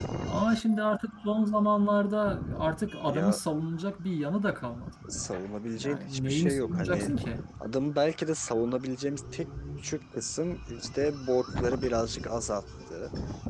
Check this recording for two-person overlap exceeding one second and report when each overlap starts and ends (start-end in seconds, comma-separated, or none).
5.8-7.1